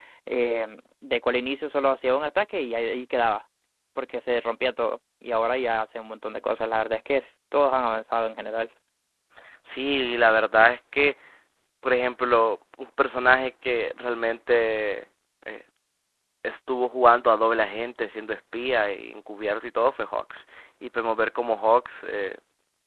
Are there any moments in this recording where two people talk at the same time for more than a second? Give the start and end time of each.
none

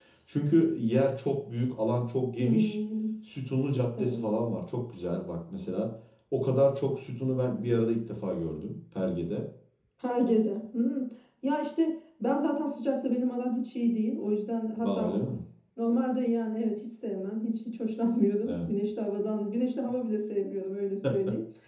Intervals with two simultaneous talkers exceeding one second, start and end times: none

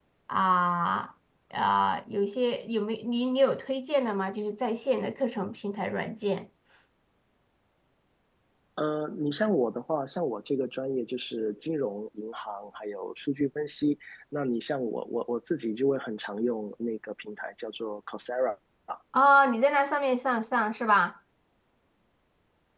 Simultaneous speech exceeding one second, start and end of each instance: none

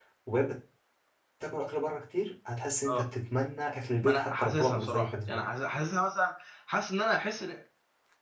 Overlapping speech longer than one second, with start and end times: 4.0-5.4

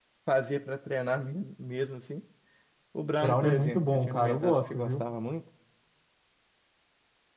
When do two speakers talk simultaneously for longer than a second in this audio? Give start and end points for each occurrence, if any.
3.2-5.0

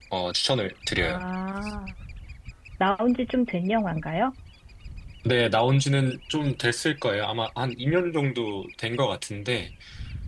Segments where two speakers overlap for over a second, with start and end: none

